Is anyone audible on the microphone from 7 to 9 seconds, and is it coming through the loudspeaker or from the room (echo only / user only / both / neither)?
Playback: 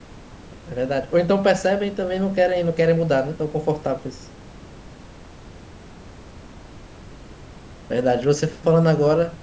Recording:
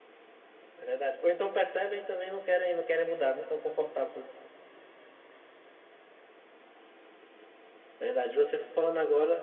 echo only